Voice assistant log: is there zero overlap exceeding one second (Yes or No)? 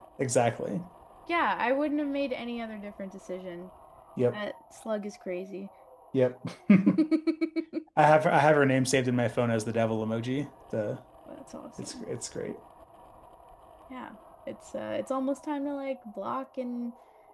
Yes